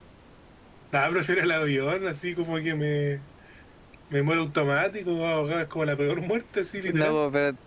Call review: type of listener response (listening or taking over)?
taking over